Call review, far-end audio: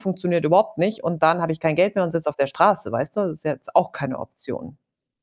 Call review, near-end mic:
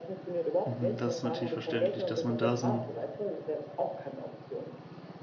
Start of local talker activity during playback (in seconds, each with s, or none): 0.6 s